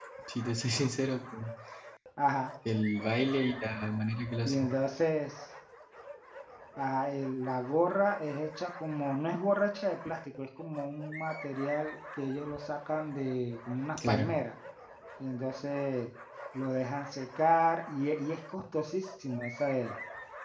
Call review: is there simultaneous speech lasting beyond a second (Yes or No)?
No